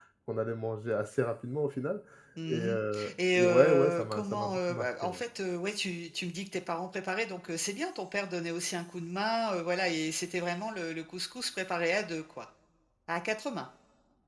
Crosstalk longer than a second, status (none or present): present